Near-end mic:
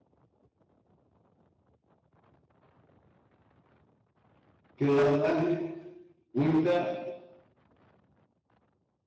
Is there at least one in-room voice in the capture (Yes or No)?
Yes